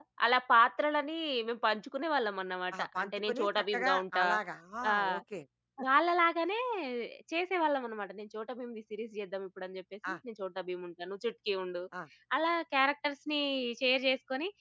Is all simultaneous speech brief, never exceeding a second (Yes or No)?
No